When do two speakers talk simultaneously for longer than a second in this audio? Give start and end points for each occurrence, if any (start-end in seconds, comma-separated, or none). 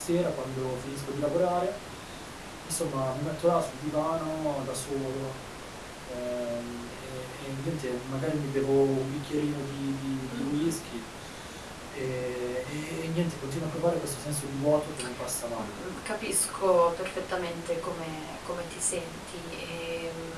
none